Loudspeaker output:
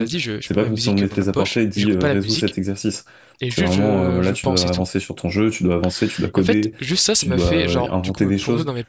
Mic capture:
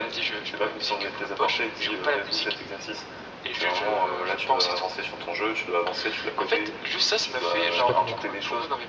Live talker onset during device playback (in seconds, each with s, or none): 7.7 s